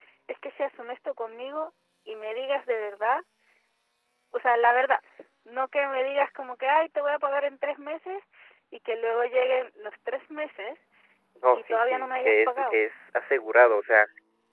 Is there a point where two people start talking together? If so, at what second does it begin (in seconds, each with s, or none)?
11.5 s